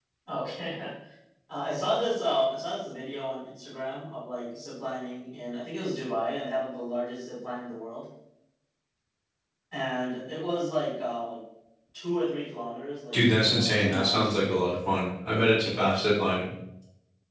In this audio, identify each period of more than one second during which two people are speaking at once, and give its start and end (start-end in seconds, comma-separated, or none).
13.1-14.6